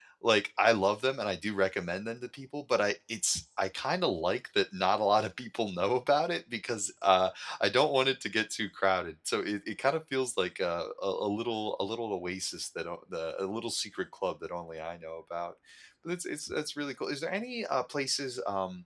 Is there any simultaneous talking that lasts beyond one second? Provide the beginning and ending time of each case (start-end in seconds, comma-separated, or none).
none